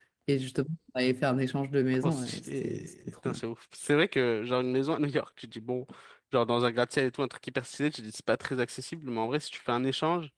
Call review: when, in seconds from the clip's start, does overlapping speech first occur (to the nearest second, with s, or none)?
2 s